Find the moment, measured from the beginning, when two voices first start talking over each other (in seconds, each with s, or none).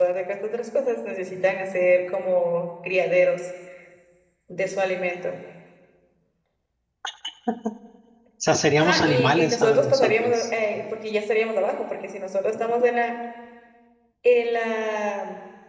8.8 s